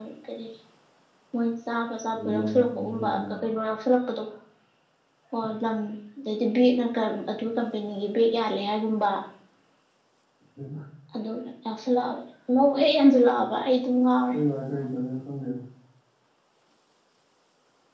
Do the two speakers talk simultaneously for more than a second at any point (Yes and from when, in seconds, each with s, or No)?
Yes, from 2.1 s